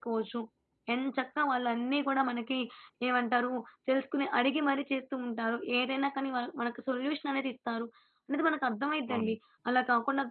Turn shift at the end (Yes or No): No